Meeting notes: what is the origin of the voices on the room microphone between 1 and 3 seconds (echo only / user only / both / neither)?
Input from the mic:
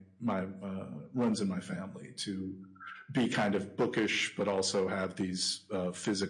echo only